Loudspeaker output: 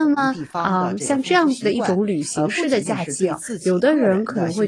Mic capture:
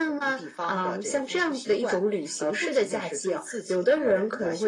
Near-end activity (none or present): none